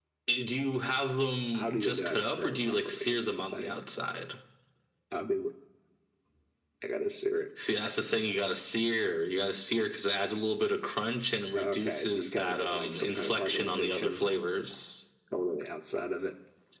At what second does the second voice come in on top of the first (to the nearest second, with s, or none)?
2 s